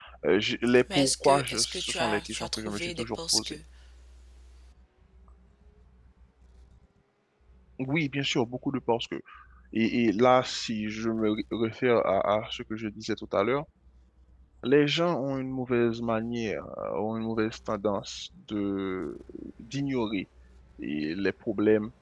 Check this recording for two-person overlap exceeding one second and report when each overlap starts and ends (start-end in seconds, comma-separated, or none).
0.9-3.5